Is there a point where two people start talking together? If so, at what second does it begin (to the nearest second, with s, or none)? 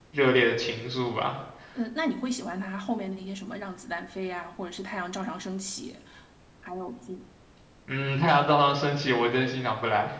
none